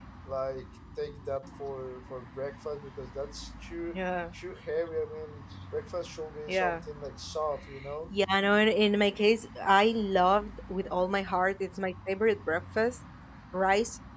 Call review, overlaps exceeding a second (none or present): none